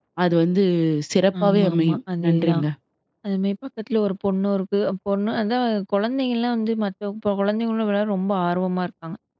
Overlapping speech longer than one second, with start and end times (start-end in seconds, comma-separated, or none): 1.4-2.6